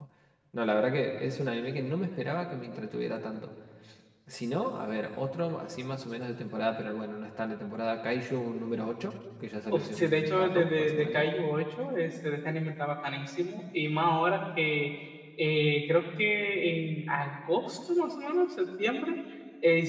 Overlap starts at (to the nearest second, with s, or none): 10 s